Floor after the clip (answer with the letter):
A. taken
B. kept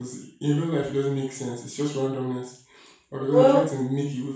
B